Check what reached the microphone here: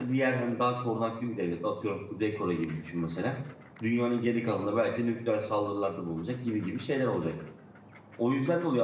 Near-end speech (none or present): present